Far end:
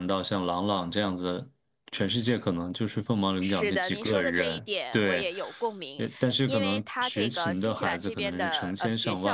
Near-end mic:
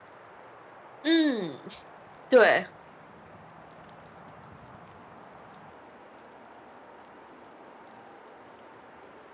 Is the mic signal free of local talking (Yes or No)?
No